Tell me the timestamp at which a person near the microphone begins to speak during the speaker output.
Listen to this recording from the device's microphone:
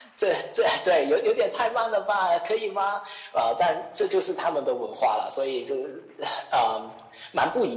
none

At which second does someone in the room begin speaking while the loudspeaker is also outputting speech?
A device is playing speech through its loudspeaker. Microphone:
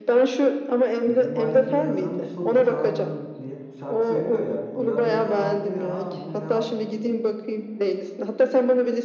1.1 s

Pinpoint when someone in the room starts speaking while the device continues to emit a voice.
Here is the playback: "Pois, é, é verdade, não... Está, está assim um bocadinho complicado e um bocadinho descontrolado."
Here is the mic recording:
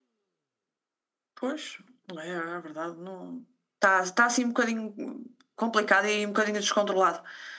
none

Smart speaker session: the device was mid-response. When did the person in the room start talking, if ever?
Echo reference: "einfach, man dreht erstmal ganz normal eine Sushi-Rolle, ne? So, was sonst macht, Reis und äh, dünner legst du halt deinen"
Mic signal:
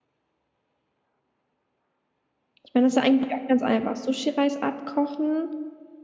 2.6 s

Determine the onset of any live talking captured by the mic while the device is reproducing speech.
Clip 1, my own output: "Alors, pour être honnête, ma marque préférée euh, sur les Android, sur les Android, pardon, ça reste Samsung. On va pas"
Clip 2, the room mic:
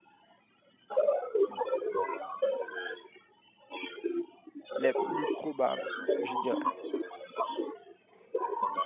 4.8 s

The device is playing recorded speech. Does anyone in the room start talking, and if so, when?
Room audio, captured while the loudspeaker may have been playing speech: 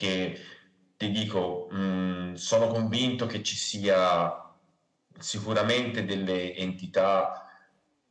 none

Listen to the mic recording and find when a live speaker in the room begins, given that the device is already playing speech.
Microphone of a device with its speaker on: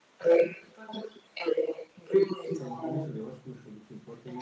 2.5 s

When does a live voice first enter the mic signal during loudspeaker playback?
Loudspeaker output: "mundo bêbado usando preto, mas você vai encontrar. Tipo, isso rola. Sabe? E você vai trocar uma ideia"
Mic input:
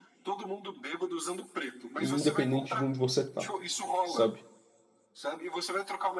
2.0 s

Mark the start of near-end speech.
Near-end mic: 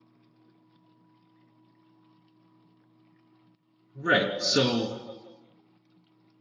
3.9 s

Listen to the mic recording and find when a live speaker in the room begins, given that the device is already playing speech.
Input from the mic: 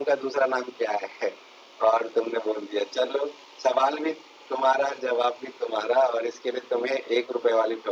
none

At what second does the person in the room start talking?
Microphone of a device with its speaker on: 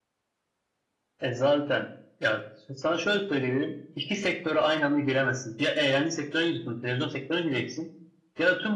none

